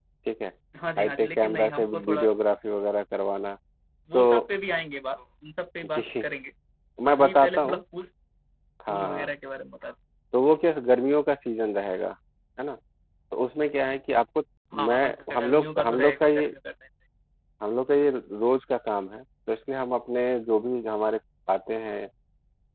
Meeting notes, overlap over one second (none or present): present